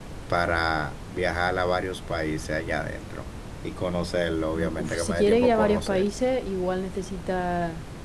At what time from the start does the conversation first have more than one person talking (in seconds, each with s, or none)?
4.6 s